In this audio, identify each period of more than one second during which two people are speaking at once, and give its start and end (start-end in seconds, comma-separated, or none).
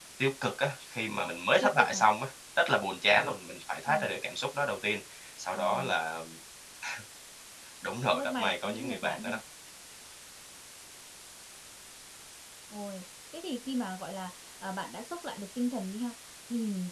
8.0-9.4